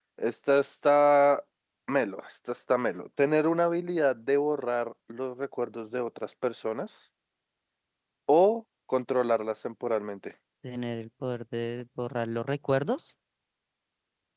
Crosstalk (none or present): none